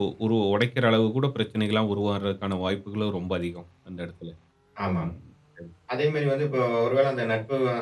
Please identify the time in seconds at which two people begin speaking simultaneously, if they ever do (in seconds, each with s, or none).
none